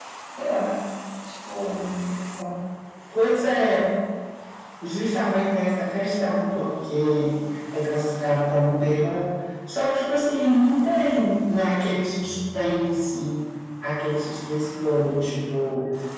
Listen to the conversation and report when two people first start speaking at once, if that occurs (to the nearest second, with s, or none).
none